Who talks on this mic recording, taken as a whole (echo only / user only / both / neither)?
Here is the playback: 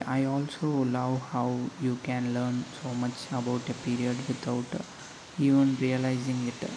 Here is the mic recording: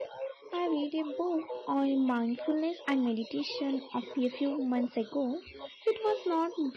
both